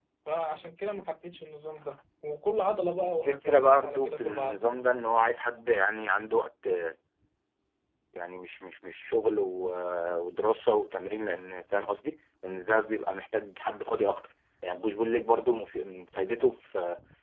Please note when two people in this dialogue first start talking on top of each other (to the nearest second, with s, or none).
3 s